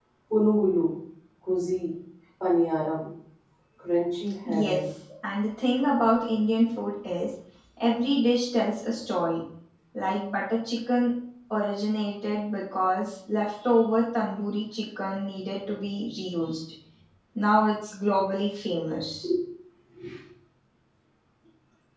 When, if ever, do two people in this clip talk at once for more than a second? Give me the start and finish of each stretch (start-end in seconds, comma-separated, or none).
none